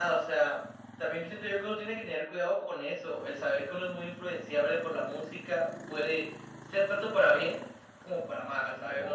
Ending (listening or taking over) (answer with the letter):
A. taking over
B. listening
A